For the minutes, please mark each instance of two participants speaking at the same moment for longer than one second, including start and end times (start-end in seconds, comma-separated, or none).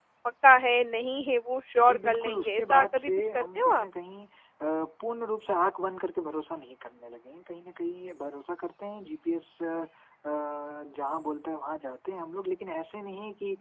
1.9-3.9